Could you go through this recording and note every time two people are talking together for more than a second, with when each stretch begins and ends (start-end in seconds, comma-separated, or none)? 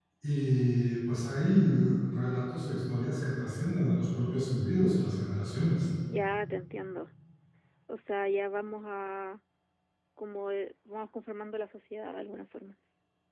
none